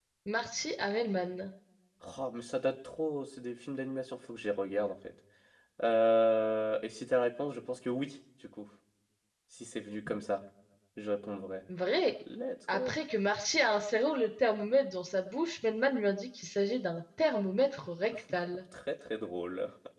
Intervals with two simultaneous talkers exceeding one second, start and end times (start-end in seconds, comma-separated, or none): none